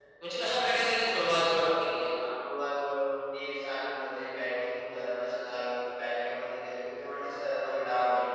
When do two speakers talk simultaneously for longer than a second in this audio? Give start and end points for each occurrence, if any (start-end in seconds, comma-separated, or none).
none